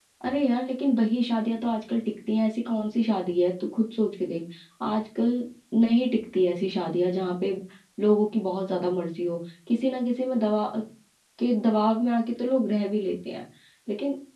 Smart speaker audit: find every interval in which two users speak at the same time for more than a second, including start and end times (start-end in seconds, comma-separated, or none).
none